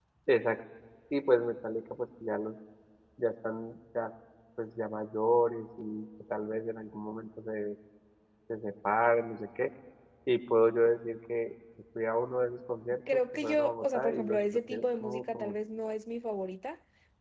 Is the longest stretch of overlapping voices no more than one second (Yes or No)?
No